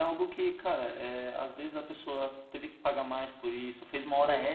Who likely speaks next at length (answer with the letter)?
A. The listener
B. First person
B